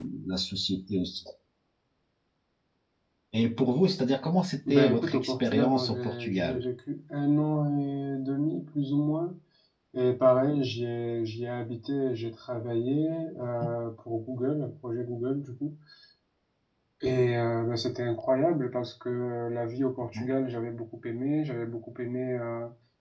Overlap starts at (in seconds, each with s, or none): 4.7 s